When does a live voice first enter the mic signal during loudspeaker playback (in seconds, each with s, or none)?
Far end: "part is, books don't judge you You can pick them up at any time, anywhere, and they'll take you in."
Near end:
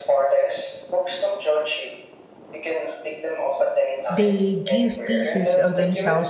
4.1 s